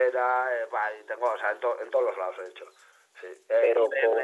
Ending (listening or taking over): listening